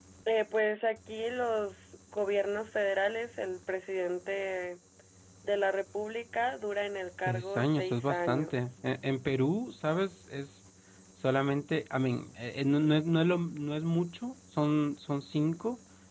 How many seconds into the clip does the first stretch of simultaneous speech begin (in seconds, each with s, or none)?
7.3 s